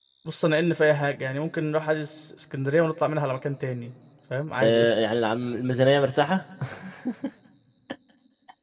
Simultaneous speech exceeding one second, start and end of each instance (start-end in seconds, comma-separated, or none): none